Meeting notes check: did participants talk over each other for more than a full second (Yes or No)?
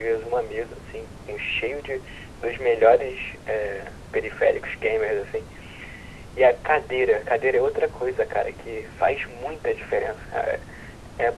No